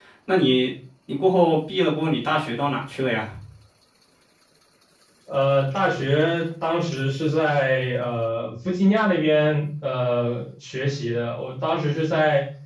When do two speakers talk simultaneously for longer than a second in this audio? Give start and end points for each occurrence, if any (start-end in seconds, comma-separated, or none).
none